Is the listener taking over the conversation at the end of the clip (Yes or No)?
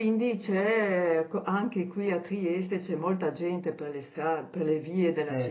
No